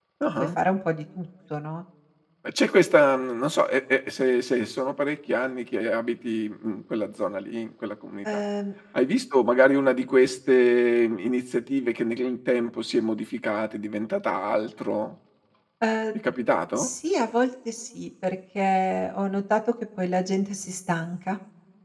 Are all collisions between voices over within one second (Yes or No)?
Yes